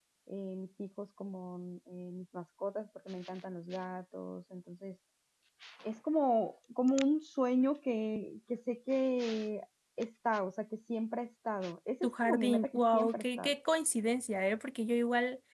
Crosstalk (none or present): present